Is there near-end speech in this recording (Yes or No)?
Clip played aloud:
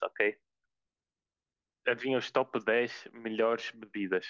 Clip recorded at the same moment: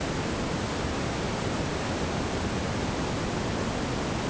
No